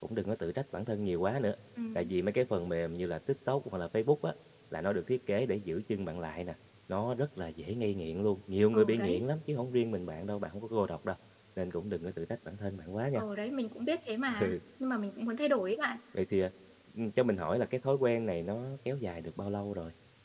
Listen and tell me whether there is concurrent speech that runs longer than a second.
No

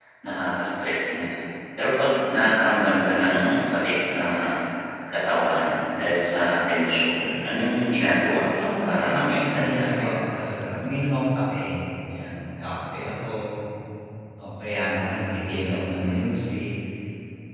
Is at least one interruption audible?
Yes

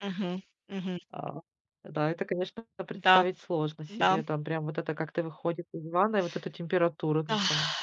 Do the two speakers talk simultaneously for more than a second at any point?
No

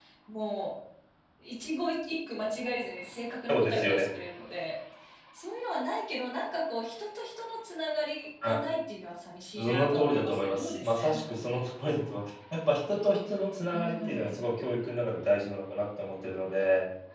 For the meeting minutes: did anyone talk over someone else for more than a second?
Yes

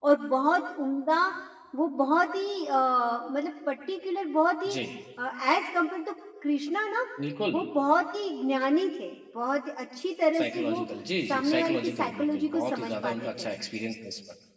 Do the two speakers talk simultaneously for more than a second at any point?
Yes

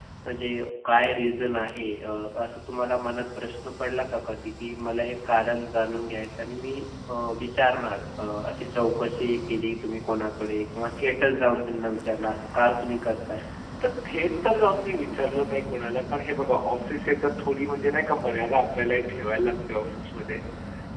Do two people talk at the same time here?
No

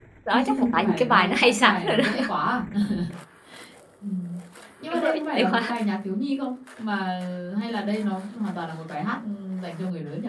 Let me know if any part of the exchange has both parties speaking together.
Yes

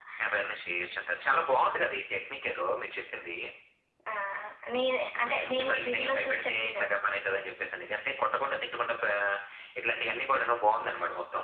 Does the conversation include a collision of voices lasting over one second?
Yes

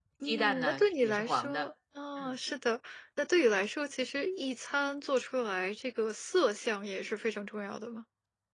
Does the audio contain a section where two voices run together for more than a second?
Yes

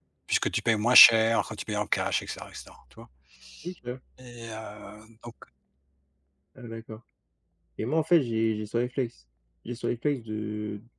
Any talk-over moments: No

